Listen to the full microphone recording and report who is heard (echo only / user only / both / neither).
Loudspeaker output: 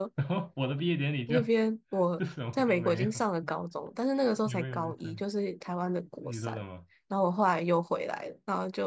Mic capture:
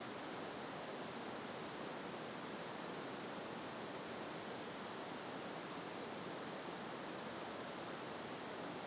neither